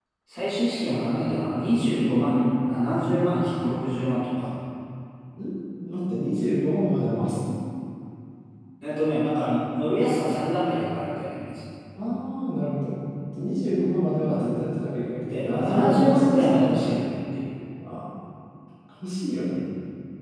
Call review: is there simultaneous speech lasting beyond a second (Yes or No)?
Yes